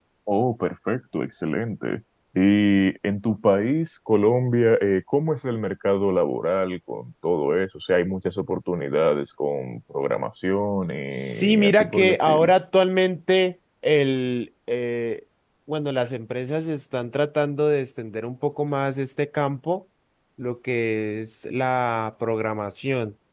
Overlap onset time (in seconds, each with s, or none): 11.1 s